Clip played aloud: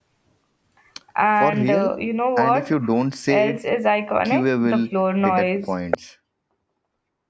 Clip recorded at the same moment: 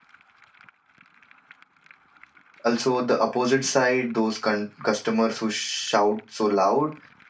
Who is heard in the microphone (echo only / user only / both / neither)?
user only